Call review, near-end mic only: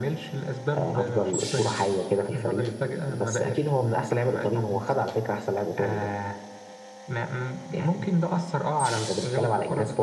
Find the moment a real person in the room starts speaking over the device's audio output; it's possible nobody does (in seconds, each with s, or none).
none